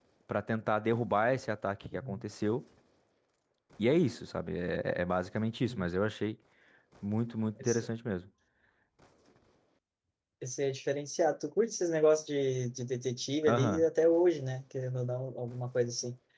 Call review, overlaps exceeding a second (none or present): none